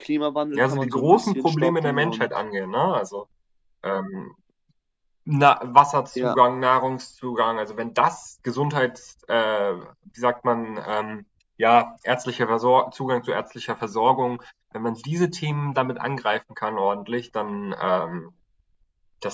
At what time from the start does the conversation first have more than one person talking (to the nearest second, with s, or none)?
1 s